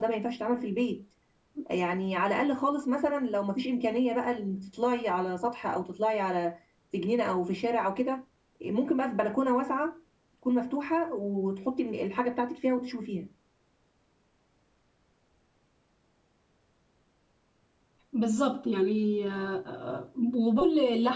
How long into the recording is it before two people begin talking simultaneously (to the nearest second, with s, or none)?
none